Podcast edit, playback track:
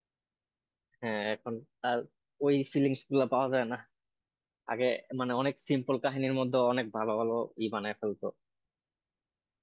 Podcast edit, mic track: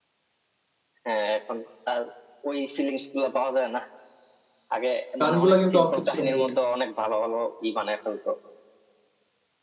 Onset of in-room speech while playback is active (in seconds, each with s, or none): 5.2 s